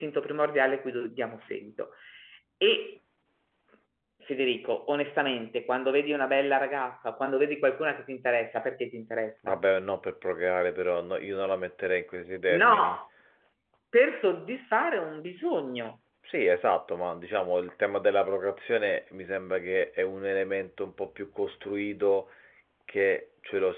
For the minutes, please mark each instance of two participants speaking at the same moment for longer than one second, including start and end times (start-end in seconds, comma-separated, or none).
none